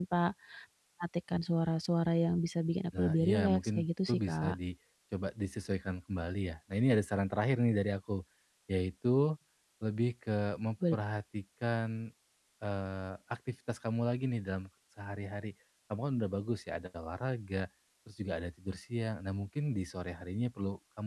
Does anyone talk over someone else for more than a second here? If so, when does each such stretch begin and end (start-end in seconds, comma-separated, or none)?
3.0-4.5